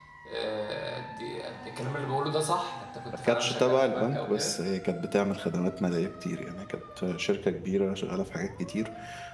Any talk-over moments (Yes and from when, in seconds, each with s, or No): Yes, from 3.2 s